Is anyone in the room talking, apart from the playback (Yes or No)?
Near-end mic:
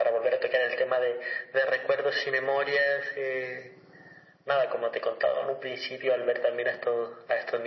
No